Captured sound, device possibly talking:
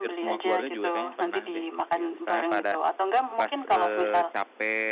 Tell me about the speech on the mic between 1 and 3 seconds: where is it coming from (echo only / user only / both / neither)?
both